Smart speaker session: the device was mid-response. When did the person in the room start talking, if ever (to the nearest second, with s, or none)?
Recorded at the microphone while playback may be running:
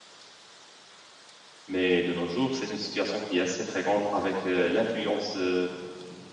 2 s